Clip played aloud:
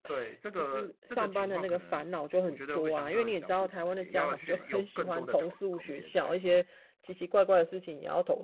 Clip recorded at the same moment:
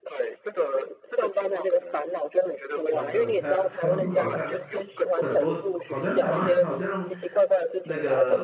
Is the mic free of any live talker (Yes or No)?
No